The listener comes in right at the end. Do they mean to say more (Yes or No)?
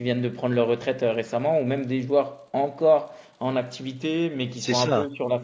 No